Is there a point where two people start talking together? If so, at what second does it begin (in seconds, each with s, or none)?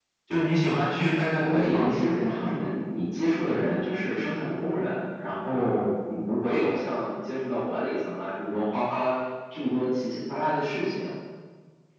1.4 s